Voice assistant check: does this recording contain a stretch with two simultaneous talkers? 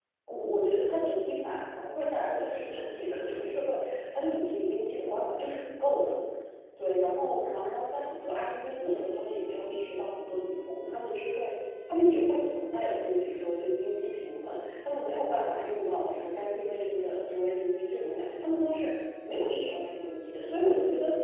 No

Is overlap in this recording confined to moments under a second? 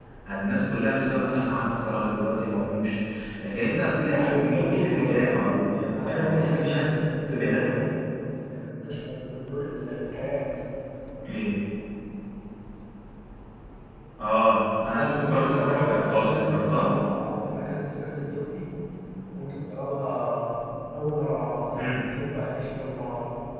No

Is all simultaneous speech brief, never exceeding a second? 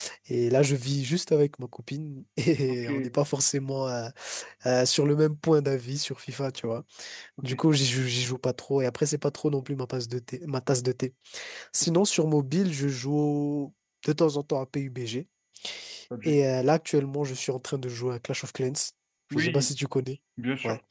Yes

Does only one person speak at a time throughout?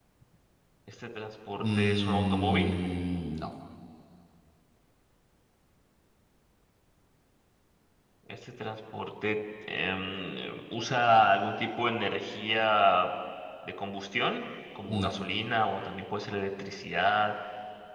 No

